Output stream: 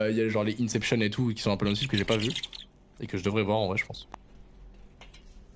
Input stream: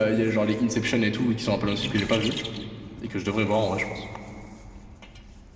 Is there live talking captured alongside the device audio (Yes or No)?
No